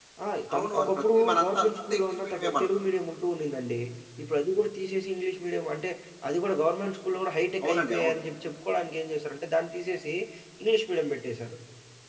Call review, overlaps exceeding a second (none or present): present